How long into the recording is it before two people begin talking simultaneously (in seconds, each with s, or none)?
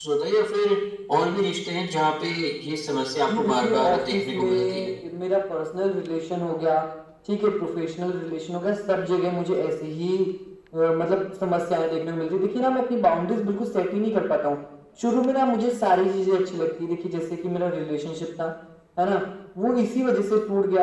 3.3 s